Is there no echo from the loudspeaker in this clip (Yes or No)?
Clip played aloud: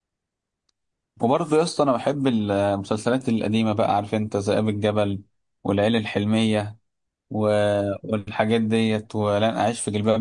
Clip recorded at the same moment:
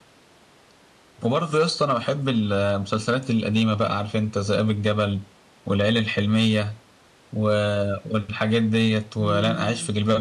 No